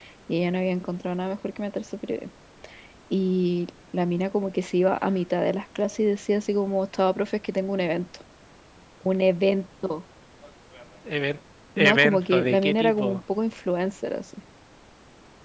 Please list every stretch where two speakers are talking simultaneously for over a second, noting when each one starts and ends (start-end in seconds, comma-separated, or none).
11.8-13.2